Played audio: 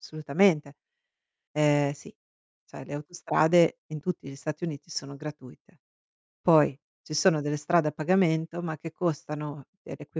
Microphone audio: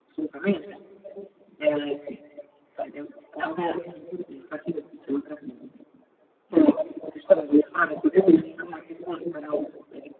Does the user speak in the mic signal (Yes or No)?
No